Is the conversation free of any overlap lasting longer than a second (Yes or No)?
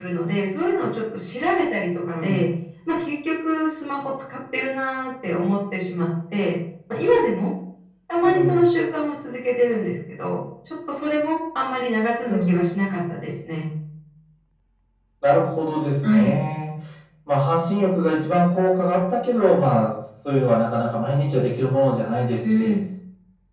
Yes